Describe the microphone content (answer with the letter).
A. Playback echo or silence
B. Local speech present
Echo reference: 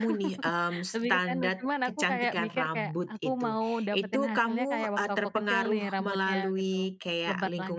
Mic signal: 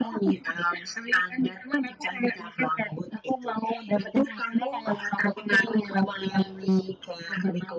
A